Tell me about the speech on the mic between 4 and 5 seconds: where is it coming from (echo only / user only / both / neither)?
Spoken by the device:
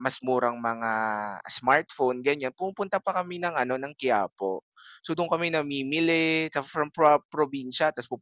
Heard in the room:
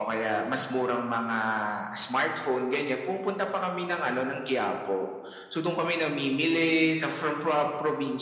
echo only